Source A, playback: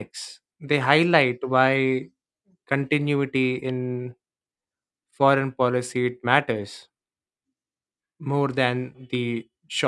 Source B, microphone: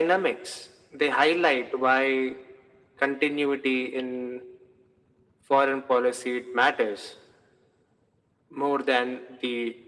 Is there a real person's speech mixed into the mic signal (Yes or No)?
No